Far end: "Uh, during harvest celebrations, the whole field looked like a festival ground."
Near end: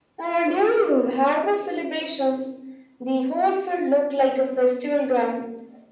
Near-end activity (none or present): none